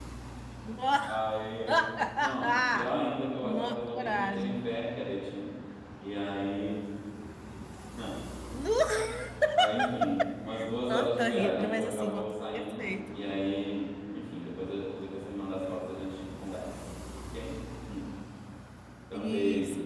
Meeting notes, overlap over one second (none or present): present